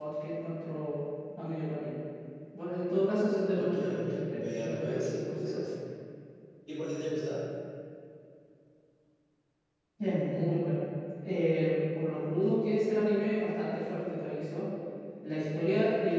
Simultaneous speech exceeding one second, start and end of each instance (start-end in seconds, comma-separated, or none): 3.5-5.7